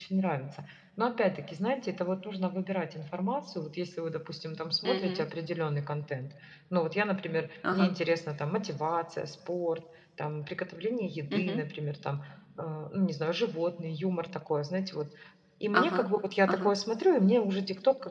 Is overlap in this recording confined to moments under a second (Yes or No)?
Yes